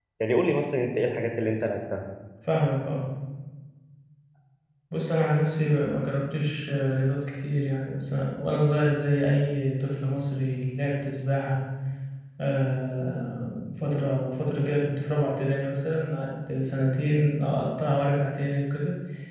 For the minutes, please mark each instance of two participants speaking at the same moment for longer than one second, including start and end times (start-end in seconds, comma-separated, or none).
none